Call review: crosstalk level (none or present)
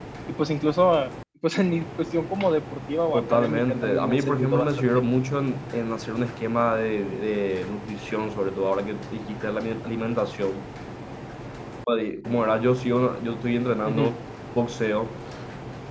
present